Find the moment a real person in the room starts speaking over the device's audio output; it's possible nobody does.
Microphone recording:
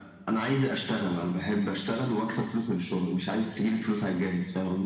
none

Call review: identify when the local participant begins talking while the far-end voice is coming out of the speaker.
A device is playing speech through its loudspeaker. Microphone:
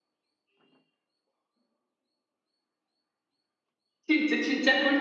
4.1 s

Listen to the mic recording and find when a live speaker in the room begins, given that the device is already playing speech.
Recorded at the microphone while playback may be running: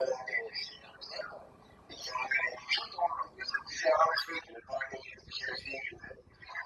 none

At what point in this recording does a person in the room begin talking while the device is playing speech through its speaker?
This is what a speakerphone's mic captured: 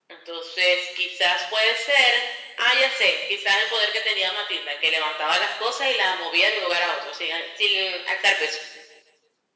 none

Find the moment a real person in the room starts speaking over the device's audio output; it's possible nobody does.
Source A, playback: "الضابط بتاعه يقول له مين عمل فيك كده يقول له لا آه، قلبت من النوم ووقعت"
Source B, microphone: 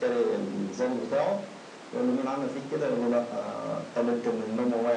none

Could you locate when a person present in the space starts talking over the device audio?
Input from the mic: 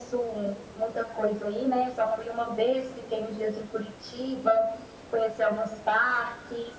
none

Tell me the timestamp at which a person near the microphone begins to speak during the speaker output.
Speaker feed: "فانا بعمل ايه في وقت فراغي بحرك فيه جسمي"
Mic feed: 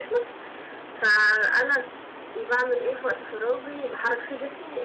none

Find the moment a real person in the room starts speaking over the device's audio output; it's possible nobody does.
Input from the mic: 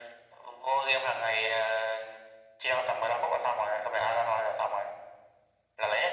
none

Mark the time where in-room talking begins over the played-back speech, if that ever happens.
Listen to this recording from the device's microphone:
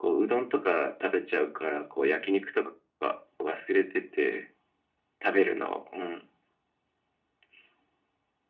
none

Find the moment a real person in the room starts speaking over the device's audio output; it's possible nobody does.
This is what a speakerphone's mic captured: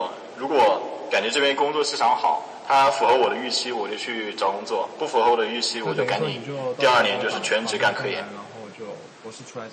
5.8 s

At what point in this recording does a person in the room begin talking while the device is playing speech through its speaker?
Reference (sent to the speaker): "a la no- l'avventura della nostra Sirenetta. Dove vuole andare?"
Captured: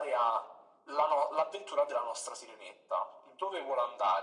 none

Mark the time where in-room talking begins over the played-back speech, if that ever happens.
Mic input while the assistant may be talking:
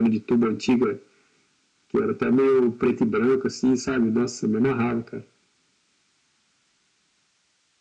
none

